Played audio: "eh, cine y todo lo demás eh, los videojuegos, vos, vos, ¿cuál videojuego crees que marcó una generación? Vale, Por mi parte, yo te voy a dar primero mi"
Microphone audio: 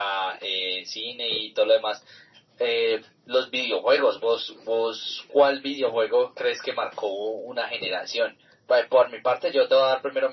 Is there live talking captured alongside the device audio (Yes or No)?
No